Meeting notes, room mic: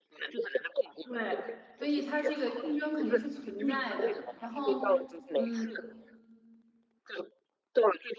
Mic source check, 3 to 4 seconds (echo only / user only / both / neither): both